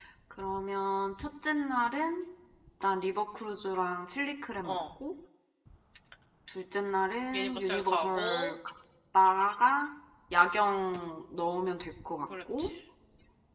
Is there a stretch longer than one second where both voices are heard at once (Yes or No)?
Yes